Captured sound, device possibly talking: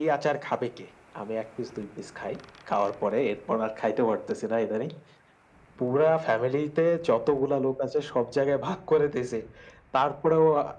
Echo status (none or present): present